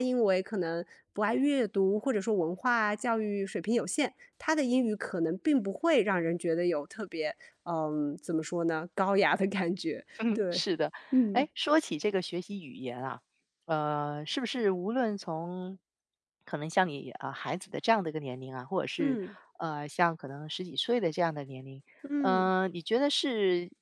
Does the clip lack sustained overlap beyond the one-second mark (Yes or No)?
Yes